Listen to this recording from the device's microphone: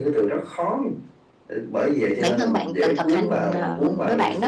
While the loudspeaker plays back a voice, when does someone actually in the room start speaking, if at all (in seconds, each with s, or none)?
2.2 s